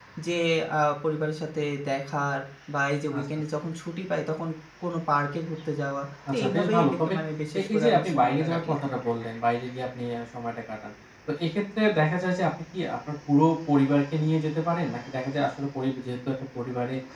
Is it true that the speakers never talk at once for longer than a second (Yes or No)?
No